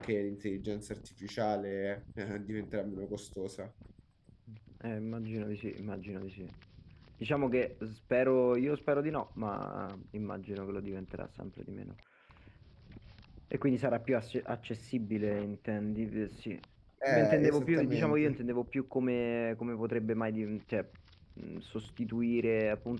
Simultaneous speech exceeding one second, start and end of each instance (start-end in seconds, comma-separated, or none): 17.1-18.4